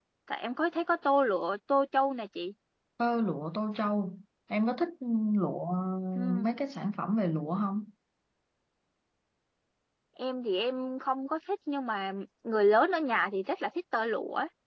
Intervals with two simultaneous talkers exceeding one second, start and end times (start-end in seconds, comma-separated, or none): none